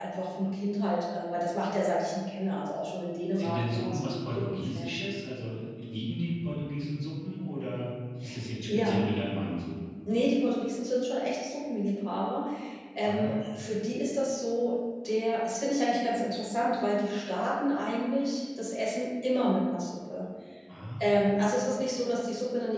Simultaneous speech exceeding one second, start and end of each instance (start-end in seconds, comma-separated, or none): 3.4-5.0